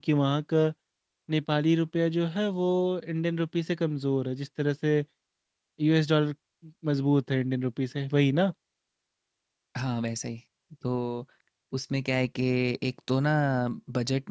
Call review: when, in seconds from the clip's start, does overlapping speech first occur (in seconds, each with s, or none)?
none